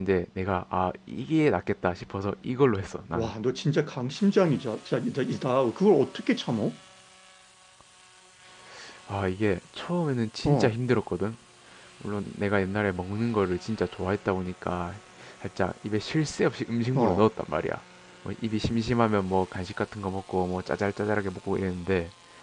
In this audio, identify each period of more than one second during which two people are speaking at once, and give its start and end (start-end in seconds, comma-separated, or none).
none